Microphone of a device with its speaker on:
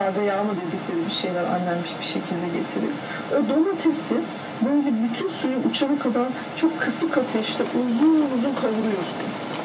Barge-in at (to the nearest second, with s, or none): none